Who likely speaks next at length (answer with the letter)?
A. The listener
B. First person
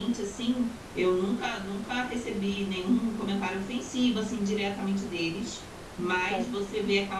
B